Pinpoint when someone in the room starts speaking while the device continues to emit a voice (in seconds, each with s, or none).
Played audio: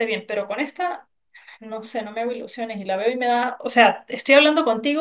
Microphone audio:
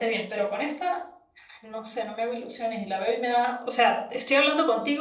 none